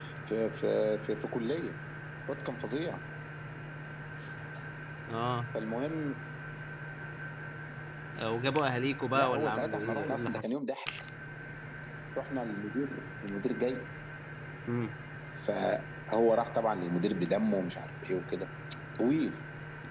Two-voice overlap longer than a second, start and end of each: 9.1-10.5

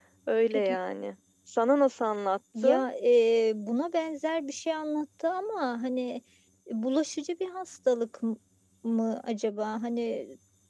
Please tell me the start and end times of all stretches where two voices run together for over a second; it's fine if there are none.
none

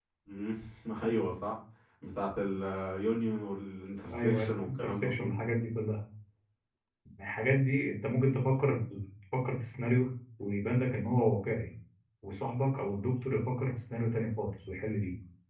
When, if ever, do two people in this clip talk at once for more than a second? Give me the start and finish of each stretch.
4.1-5.3

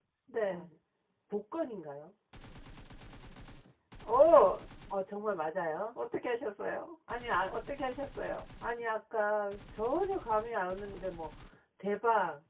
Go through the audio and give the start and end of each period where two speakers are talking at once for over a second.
none

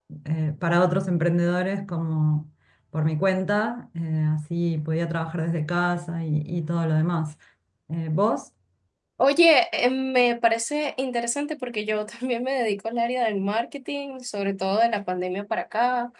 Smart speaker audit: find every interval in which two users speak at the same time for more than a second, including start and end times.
none

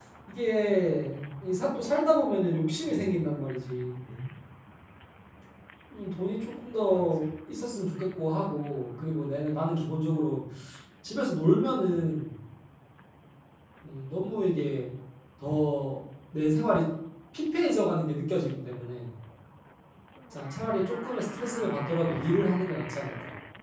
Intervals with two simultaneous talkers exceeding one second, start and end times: none

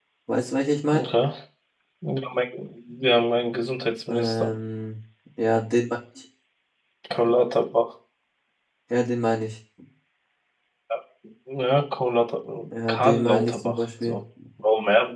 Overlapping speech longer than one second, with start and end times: 12.9-14.2

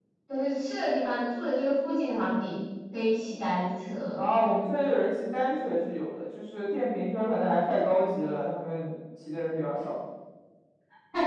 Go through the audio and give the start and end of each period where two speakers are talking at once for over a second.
none

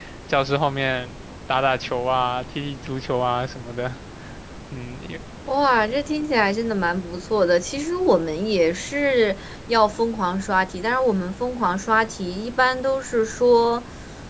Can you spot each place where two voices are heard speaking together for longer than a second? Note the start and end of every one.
none

